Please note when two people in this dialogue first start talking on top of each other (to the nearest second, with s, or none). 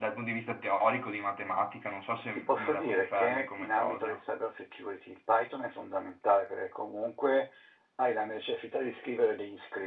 2 s